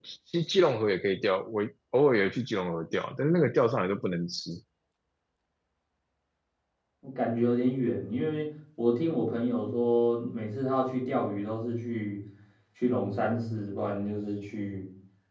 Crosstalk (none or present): none